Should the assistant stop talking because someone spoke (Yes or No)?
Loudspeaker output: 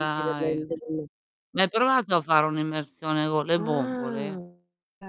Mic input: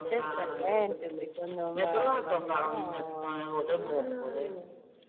Yes